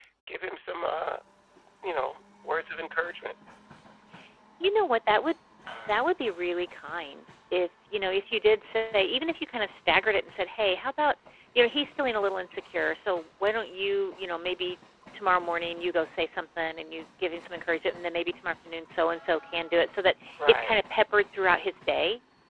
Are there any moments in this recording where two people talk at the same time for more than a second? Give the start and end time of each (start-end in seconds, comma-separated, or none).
none